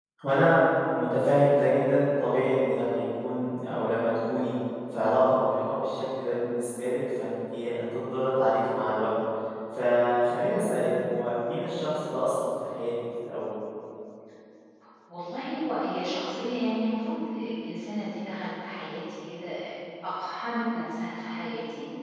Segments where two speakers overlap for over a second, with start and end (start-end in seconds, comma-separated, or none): none